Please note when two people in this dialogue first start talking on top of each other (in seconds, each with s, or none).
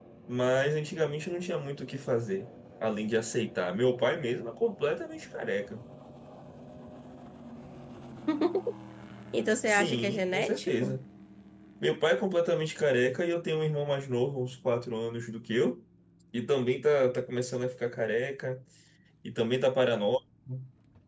9.7 s